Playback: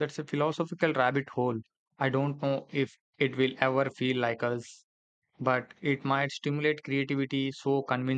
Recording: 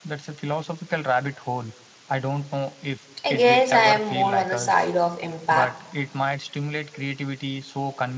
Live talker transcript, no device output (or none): I guess I am more on the side of impact.